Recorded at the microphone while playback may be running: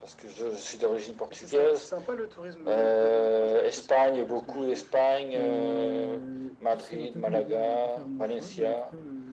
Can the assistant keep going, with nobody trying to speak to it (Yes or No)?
No